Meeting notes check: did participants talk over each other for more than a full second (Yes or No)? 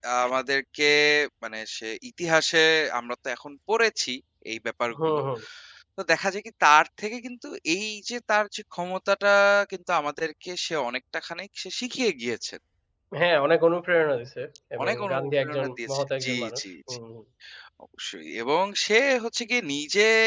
Yes